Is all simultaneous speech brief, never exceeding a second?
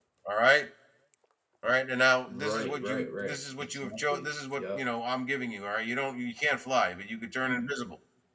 No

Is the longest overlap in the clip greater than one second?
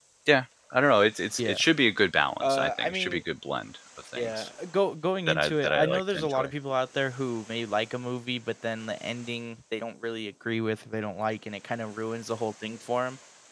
Yes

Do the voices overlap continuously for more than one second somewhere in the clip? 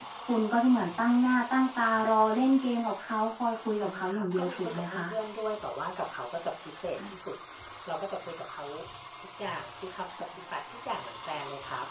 Yes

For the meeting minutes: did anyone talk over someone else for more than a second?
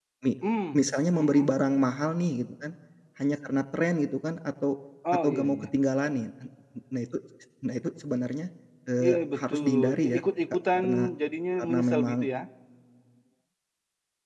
Yes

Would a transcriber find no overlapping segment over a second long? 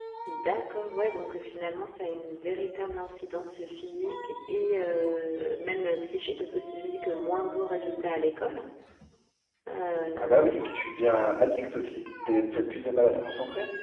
Yes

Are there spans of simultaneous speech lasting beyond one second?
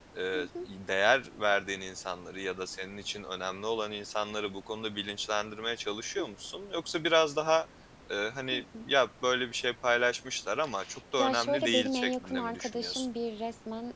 Yes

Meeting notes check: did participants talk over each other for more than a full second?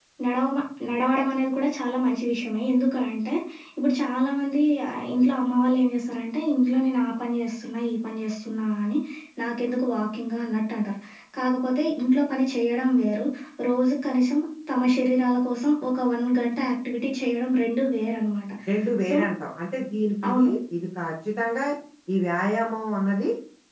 No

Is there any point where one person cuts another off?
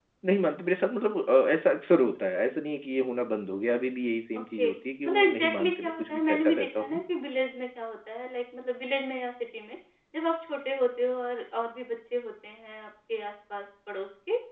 Yes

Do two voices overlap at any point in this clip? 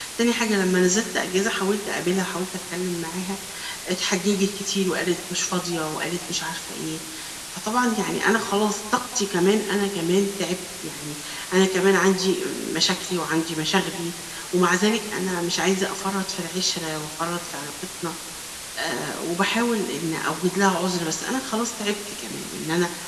No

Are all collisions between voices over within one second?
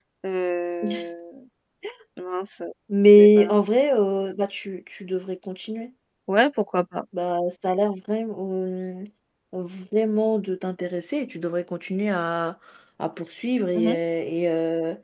Yes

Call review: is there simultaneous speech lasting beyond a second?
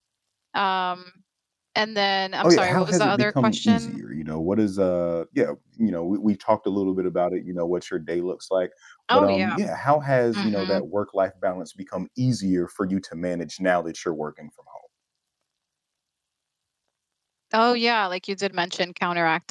Yes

